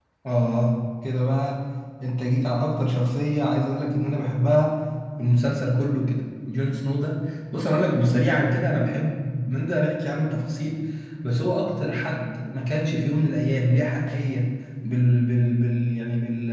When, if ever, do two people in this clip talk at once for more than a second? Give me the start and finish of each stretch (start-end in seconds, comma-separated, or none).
none